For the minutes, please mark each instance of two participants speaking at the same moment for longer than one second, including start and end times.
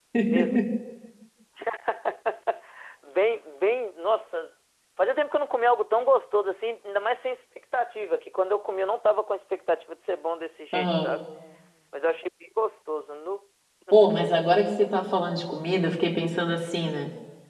none

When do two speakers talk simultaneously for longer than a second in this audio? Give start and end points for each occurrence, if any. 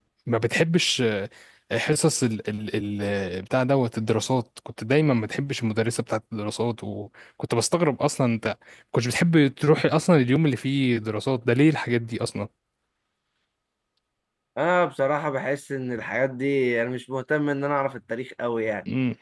none

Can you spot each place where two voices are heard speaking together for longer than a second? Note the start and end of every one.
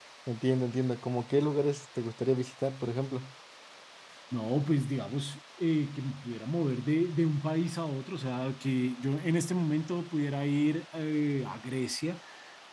none

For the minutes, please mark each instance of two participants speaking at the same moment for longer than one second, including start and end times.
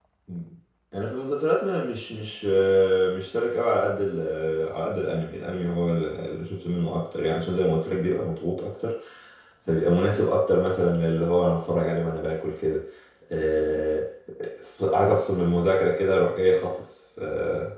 none

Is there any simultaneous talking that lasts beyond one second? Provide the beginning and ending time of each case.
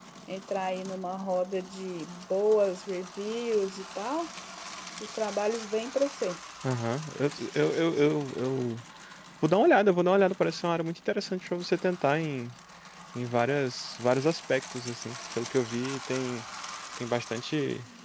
none

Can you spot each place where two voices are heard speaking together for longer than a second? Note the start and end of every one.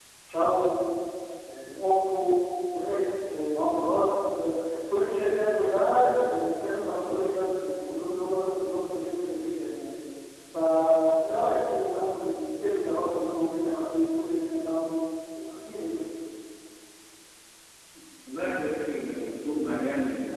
none

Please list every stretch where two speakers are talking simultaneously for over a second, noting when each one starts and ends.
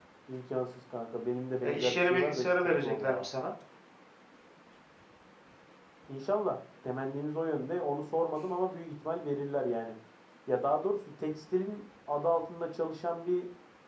1.6-3.3

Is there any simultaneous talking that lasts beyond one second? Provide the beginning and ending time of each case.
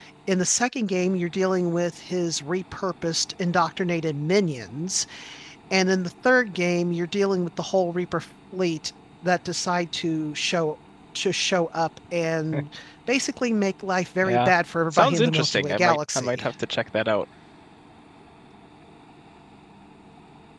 14.9-16.5

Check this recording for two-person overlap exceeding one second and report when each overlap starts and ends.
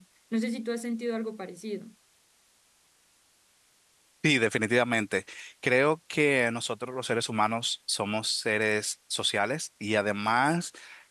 none

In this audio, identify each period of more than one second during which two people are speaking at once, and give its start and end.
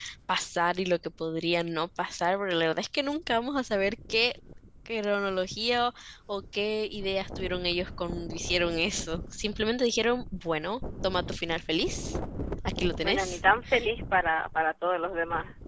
none

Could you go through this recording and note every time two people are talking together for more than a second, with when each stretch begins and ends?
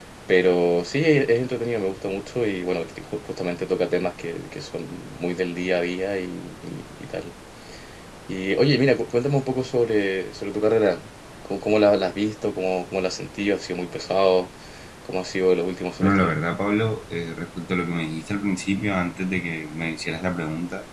none

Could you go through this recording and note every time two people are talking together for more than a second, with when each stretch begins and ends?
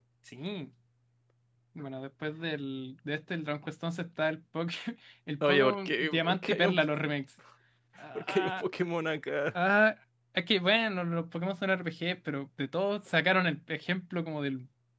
5.5-6.8

